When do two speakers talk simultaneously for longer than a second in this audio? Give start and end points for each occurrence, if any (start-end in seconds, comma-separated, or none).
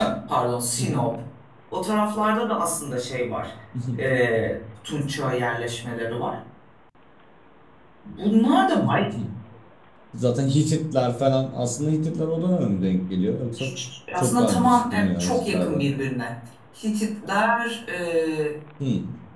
14.2-15.9